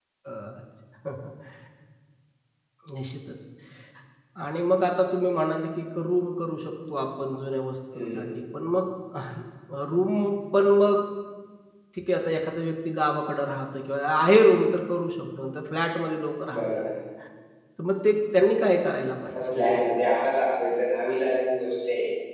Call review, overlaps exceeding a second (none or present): none